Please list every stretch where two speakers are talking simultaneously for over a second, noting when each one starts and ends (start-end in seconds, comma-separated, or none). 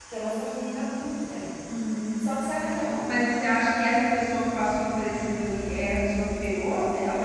none